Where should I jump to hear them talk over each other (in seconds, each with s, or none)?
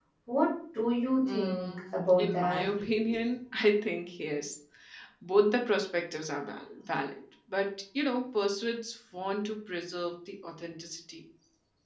1.3 s